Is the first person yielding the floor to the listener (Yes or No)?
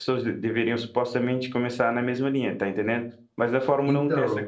No